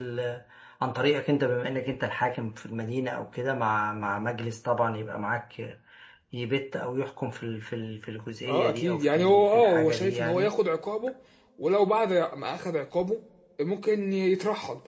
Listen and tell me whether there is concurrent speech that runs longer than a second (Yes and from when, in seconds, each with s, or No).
Yes, from 8.5 s